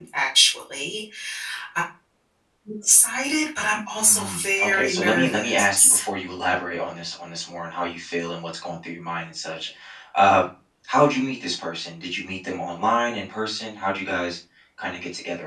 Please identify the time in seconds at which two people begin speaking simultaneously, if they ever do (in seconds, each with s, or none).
4.0 s